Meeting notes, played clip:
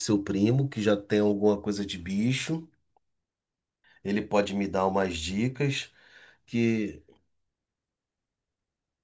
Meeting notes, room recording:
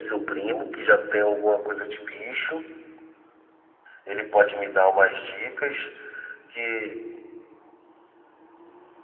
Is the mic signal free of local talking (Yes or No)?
Yes